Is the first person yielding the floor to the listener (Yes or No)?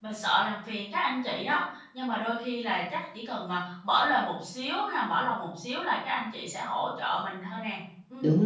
Yes